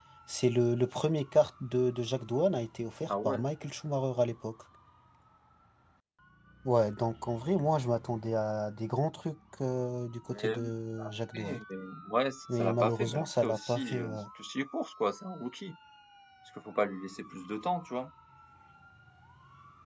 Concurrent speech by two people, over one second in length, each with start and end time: 12.5-14.2

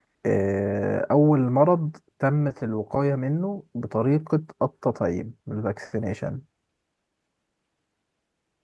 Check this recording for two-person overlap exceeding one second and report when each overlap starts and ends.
none

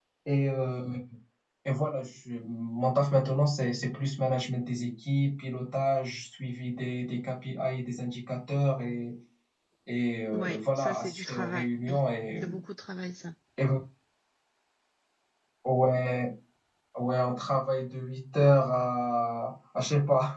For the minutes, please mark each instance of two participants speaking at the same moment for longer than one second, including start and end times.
10.3-11.7

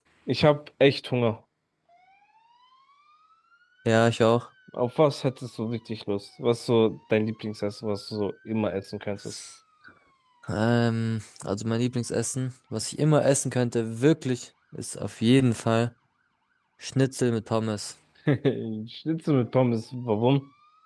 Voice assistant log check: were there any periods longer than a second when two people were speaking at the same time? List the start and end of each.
none

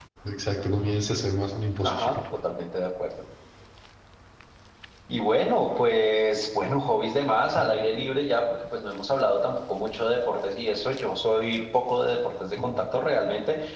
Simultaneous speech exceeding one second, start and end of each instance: none

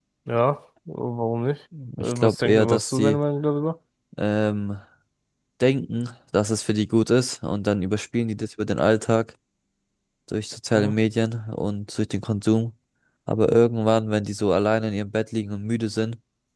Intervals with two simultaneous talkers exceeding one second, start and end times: 2.0-3.2

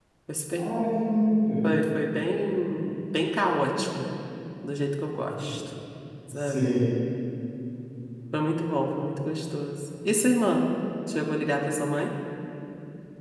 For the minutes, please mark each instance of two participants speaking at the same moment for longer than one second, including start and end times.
none

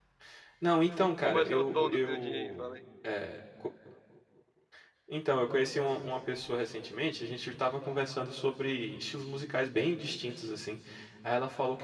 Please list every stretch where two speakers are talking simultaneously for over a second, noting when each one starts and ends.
1.2-2.7

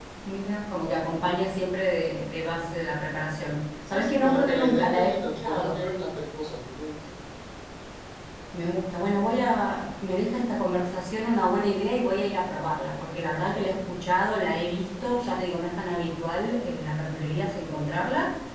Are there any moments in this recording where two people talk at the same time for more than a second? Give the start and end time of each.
3.9-5.8

